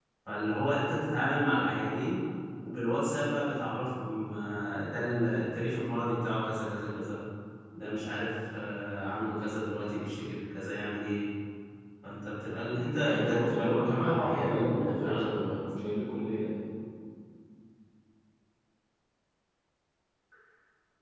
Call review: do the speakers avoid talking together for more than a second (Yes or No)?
No